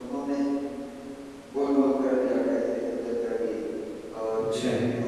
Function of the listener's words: listening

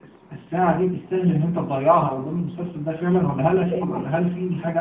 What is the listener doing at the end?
listening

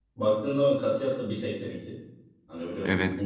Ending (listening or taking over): listening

